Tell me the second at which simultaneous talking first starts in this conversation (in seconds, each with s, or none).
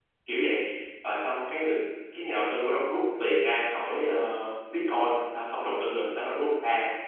none